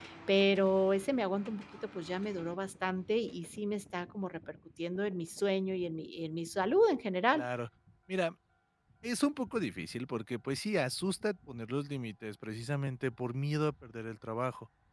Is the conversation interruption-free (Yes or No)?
Yes